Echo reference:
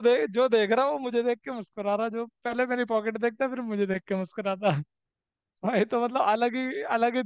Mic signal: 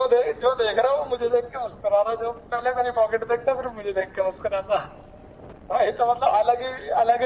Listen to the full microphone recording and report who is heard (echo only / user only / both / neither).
echo only